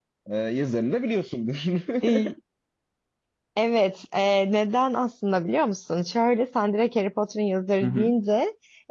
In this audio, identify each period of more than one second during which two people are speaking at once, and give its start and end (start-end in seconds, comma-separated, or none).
none